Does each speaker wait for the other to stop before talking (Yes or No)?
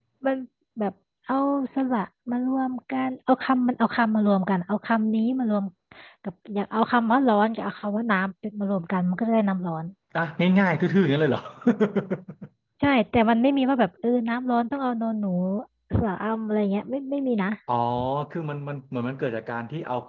Yes